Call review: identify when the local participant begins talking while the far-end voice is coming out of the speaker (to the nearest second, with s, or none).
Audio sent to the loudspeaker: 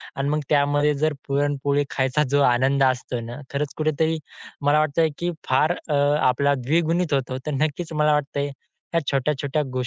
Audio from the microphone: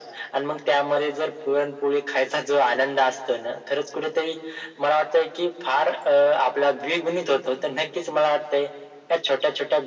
none